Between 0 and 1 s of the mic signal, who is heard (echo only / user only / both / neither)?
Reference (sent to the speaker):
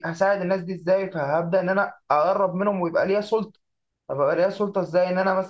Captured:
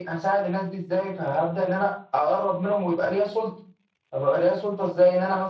echo only